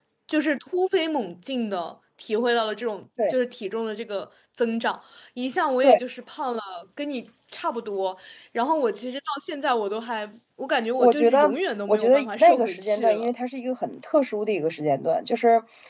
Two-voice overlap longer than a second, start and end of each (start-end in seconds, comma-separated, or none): 11.9-13.3